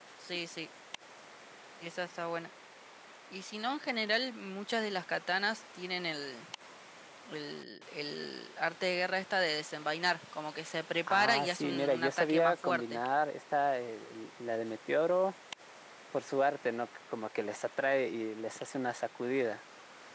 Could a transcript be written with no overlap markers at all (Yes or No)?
No